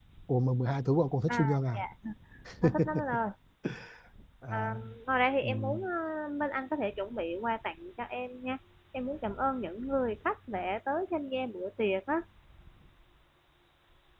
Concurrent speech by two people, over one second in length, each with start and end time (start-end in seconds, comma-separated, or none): none